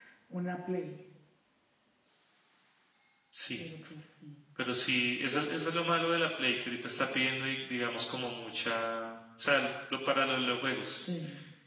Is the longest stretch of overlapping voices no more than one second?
Yes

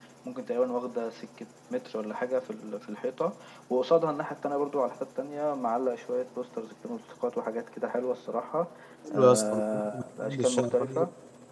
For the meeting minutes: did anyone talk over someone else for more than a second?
Yes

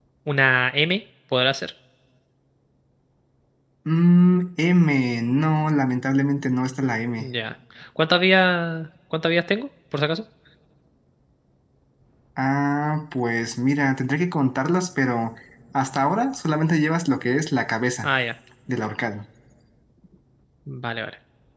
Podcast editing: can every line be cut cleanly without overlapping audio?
Yes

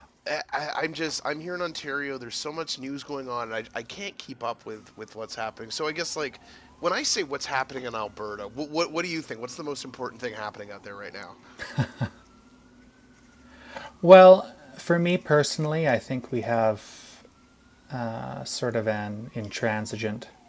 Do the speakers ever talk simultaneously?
No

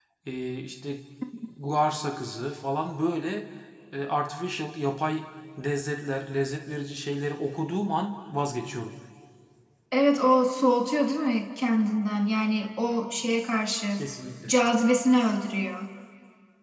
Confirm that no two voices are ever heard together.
Yes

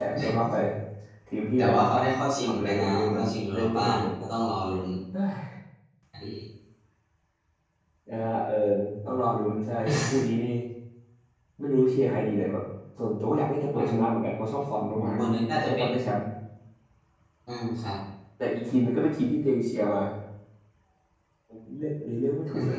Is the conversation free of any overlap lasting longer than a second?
No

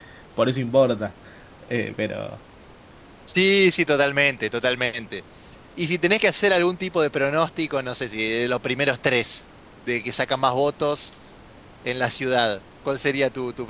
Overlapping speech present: No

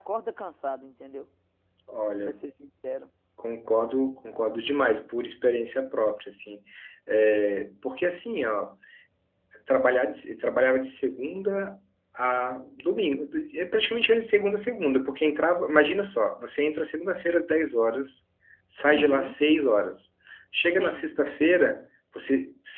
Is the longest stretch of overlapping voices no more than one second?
Yes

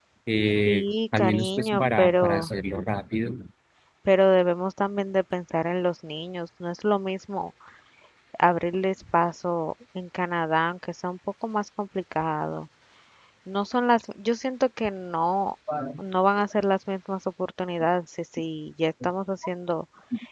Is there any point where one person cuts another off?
Yes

